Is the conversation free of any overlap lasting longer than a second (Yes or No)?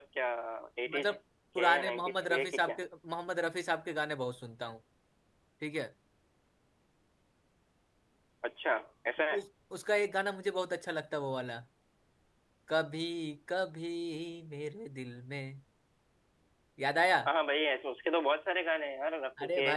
No